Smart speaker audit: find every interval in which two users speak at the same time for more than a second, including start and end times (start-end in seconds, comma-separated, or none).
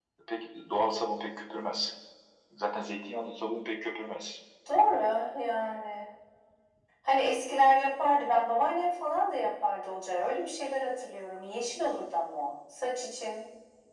none